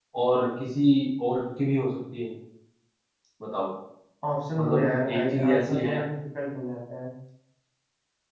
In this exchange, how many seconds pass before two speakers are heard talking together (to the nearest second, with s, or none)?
5 s